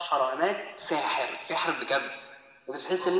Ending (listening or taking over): listening